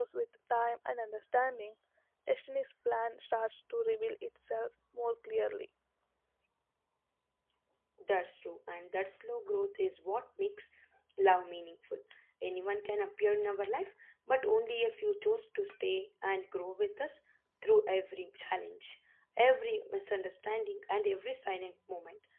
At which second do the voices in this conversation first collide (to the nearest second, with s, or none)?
none